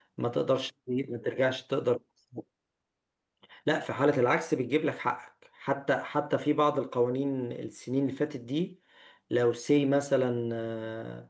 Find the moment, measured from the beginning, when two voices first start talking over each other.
none

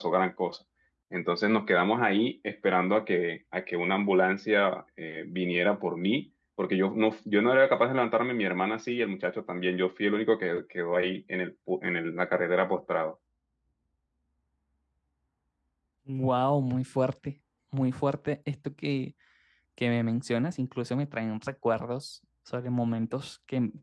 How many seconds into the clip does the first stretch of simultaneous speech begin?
none

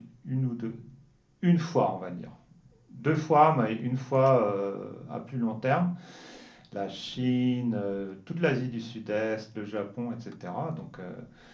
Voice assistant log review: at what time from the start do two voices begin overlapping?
none

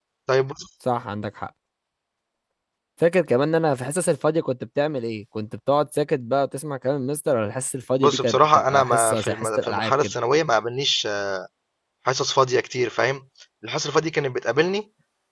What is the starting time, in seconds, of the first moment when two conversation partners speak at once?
8.0 s

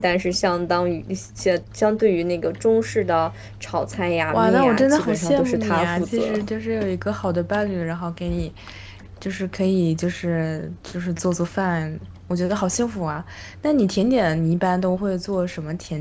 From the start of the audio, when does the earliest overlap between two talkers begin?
4.3 s

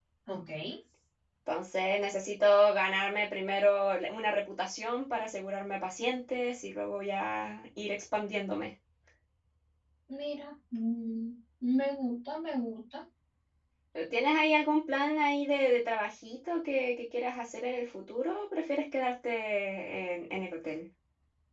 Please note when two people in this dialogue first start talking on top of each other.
none

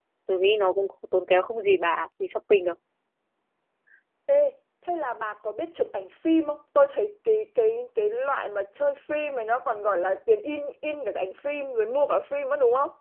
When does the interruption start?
none

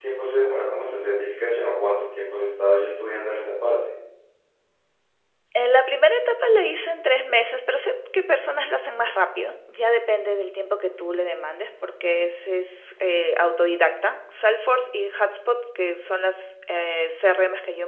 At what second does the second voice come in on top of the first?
none

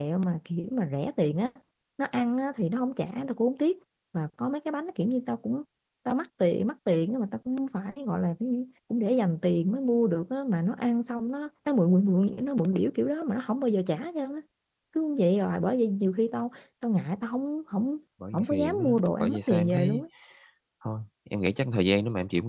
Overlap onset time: 18.2 s

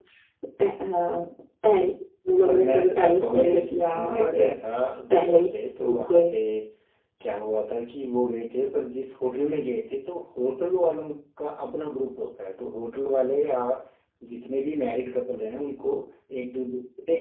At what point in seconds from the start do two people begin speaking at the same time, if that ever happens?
2.5 s

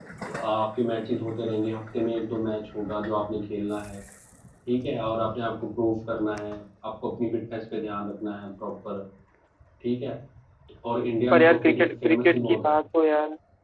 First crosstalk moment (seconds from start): 11.3 s

